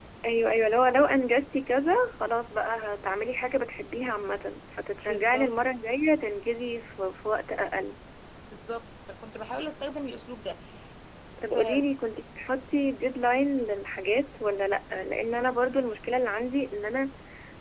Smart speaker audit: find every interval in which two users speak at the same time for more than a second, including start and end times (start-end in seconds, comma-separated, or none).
none